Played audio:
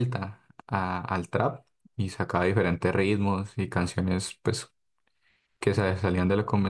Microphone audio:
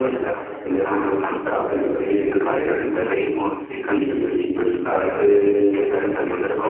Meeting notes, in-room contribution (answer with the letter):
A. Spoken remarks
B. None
A